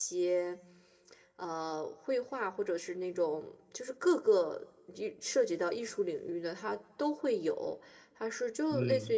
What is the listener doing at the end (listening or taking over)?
listening